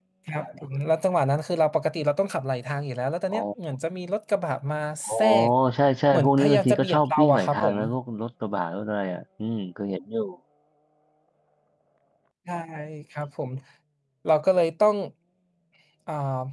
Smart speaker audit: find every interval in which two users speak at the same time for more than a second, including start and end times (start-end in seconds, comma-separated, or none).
6.1-7.8